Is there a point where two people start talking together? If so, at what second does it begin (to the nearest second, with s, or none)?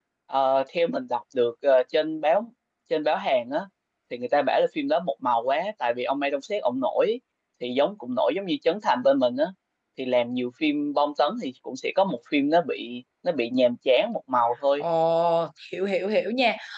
none